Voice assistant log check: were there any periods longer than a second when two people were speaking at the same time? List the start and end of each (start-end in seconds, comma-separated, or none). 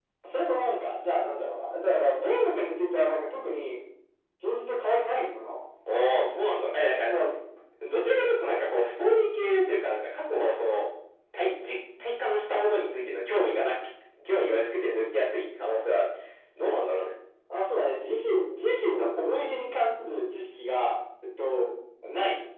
none